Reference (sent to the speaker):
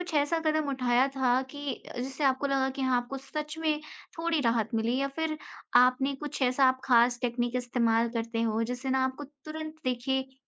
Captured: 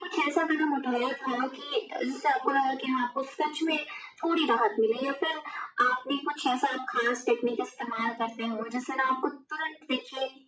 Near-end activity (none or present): none